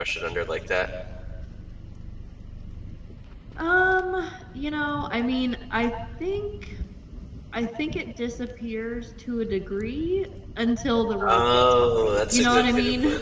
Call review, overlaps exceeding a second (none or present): present